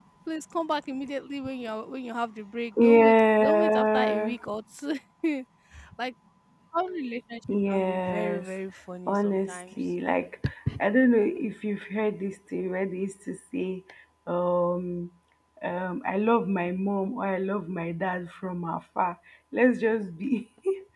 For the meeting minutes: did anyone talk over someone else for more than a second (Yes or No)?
Yes